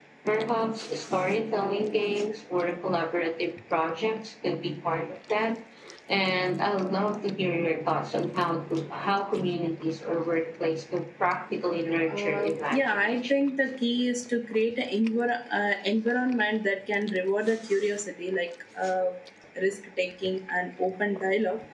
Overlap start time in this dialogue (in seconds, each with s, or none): 12.1 s